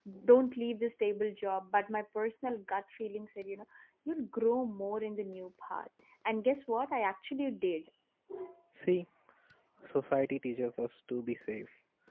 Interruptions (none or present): none